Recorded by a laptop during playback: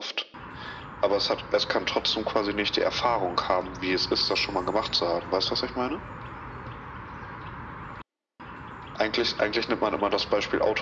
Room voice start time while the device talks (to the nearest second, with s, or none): none